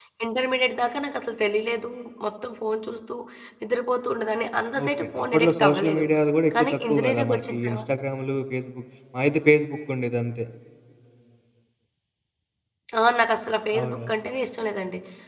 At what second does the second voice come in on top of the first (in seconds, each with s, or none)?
4.8 s